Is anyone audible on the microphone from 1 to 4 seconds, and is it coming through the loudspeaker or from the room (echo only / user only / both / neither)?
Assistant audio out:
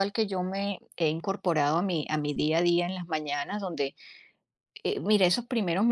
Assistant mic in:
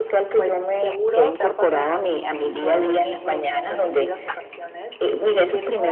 both